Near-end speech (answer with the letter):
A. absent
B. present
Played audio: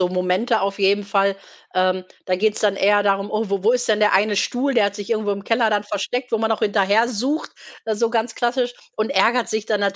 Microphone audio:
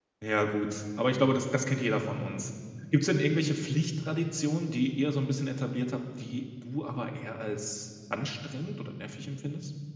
B